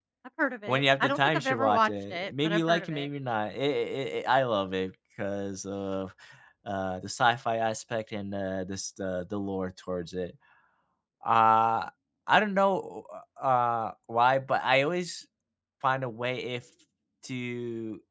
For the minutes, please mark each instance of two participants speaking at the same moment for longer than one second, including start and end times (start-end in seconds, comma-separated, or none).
0.7-3.1